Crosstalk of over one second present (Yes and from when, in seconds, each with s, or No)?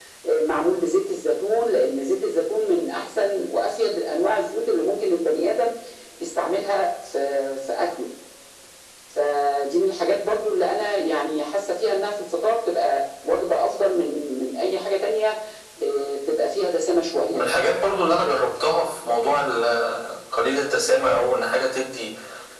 No